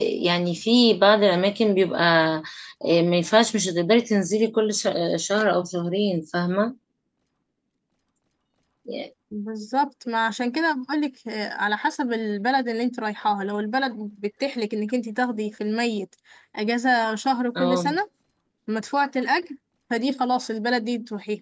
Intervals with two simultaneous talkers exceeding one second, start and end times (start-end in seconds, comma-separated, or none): none